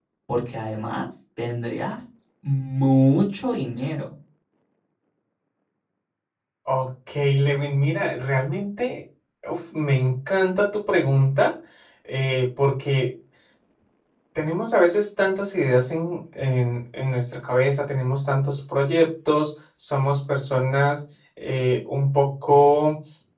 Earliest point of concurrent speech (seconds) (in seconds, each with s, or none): none